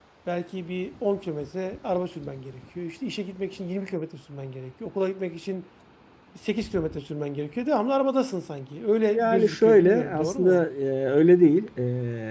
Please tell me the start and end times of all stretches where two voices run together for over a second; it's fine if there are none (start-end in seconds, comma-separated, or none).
9.1-10.6